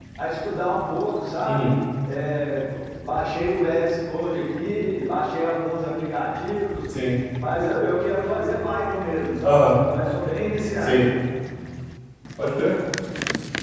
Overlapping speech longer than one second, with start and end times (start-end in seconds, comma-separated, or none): none